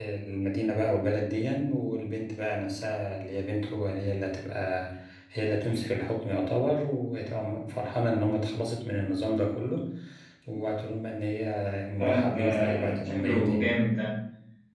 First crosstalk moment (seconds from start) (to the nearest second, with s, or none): 12 s